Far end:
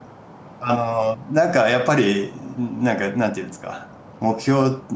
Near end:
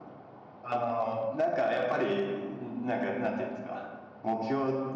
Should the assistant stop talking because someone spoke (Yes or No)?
No